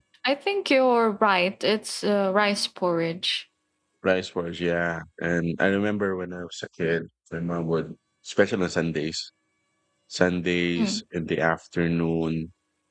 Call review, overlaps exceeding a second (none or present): none